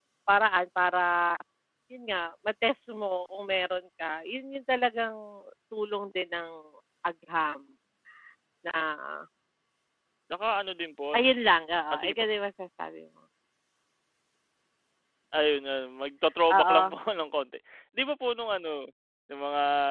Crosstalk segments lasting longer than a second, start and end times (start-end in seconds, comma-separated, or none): none